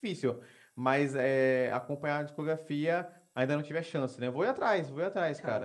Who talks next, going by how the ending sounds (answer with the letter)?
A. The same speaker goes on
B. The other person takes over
B